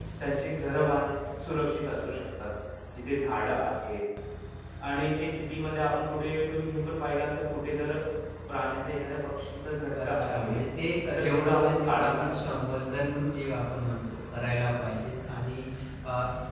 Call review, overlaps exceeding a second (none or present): present